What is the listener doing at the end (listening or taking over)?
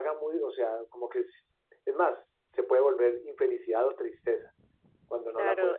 taking over